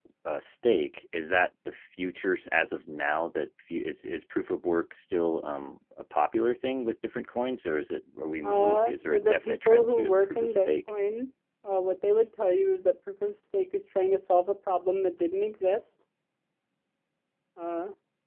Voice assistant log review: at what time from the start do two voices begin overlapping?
8.4 s

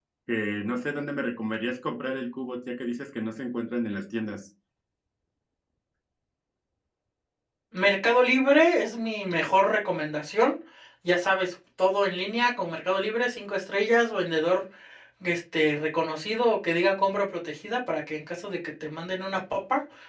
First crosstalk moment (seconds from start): none

